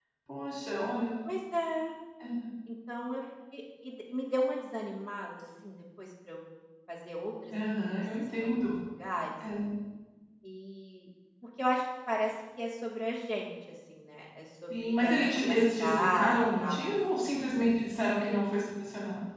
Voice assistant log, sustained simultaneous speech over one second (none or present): present